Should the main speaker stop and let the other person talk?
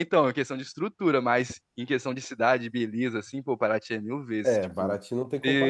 Yes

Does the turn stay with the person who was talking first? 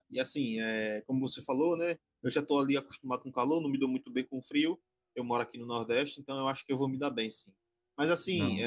Yes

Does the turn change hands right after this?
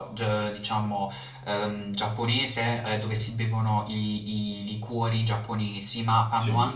No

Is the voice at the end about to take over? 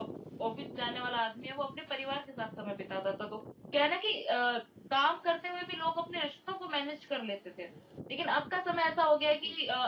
No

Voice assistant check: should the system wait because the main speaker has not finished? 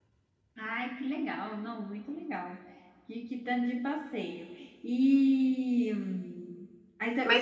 No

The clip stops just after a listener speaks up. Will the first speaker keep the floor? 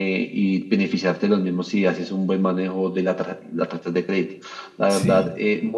Yes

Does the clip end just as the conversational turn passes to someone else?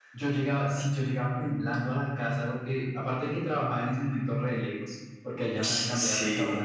No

